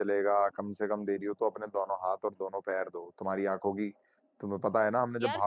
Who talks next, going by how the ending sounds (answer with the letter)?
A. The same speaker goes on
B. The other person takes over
B